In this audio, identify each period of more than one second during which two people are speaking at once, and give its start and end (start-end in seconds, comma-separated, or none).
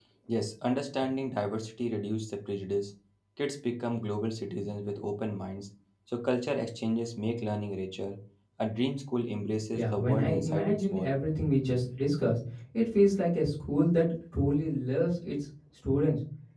9.7-11.1